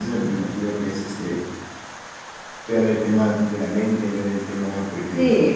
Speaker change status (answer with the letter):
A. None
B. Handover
B